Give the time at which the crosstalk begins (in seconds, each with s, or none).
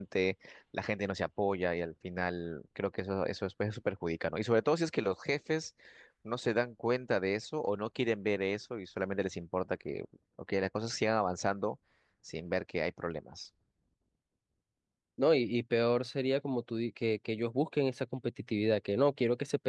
none